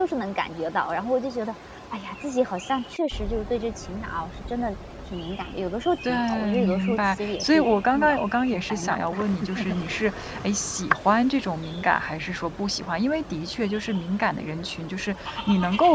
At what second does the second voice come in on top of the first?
6.0 s

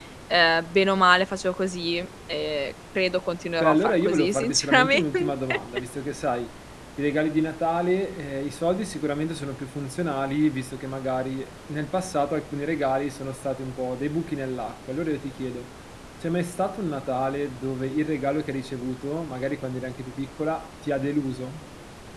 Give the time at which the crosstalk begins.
3.6 s

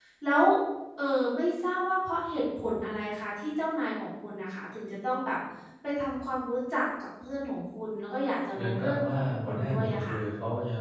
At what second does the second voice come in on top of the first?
8.5 s

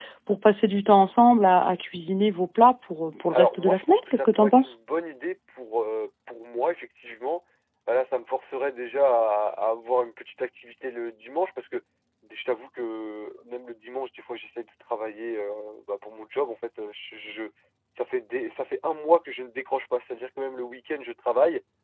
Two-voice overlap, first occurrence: 3.3 s

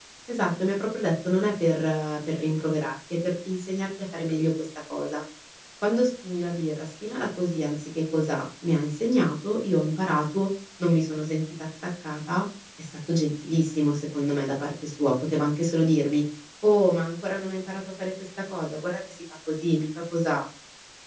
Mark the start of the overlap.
none

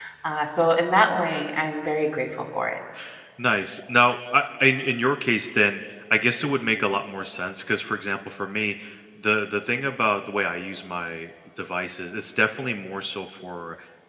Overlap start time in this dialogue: none

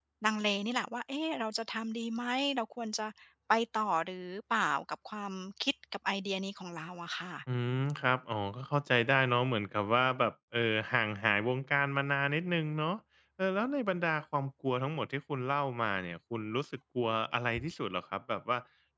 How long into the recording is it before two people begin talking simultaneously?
none

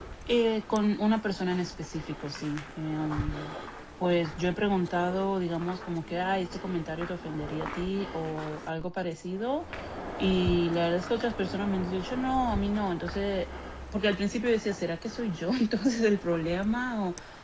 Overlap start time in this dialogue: none

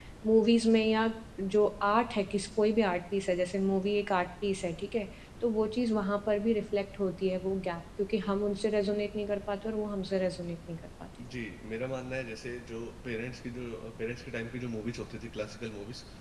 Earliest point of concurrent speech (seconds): none

